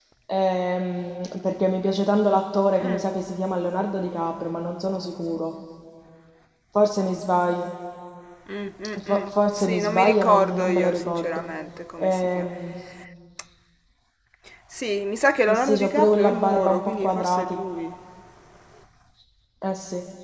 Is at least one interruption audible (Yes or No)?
Yes